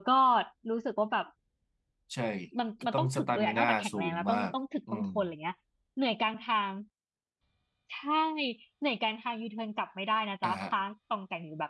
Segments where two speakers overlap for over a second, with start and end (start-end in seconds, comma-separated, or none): 2.9-4.5